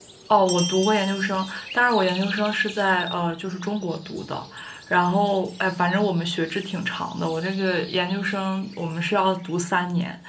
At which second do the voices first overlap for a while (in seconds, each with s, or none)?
none